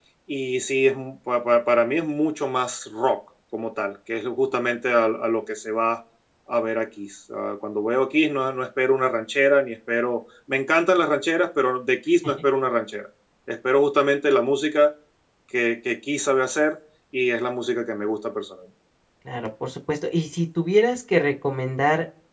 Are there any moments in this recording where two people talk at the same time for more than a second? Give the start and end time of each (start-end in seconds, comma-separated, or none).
none